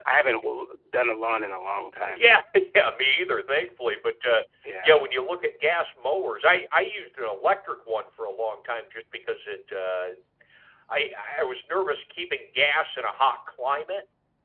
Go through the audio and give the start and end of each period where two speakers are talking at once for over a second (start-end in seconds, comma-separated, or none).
none